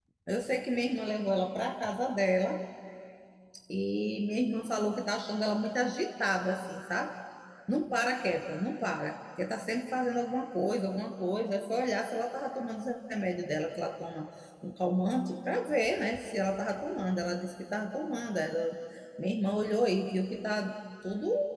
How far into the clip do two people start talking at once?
none

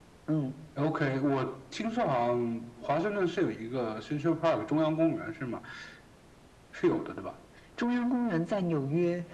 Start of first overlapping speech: none

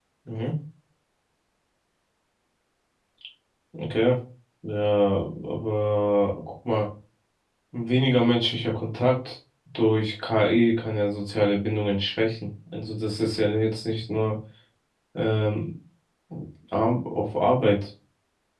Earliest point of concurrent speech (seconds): none

